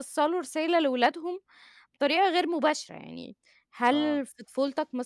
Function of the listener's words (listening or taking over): listening